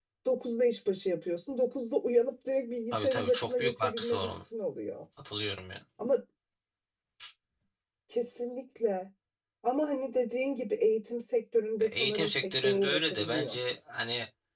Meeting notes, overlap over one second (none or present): present